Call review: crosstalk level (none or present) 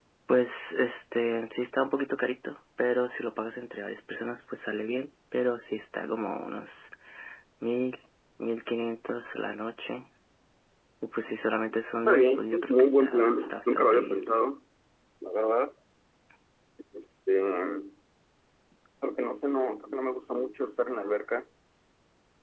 present